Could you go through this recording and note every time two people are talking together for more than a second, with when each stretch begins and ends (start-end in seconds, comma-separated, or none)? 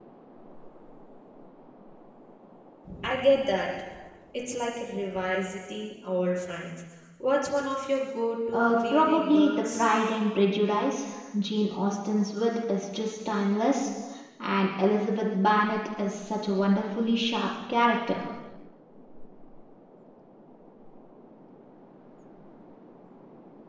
8.5-9.8